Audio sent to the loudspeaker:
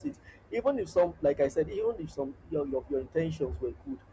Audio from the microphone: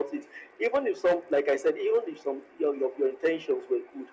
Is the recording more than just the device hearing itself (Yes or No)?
No